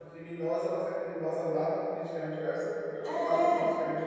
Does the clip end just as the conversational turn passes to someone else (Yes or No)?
Yes